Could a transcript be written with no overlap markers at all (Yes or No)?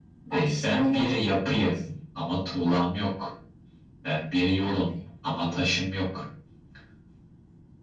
No